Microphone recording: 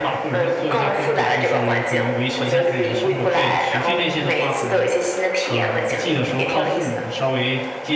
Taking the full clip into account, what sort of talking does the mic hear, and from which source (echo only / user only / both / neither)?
both